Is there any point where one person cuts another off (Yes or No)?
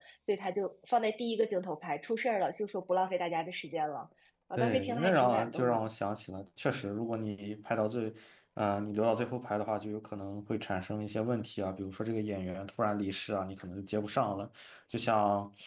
Yes